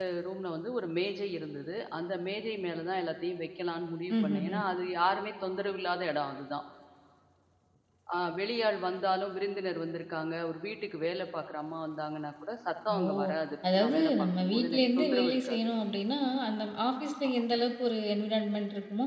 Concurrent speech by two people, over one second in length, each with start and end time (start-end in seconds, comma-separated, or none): 13.8-15.6